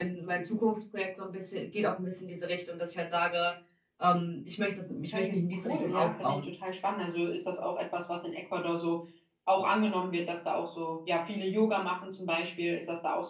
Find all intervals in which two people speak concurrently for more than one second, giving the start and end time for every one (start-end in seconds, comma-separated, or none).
5.1-6.5